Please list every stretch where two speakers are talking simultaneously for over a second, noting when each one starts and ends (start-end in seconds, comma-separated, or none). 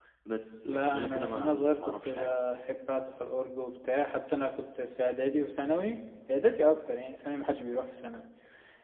0.7-2.3